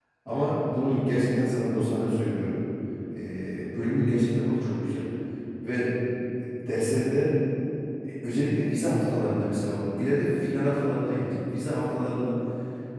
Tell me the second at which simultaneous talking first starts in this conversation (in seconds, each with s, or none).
none